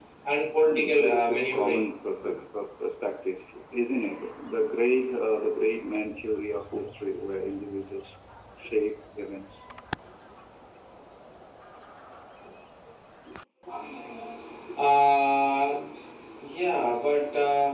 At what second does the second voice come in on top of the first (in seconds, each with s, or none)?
0.7 s